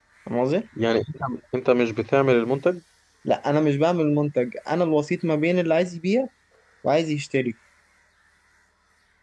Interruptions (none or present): none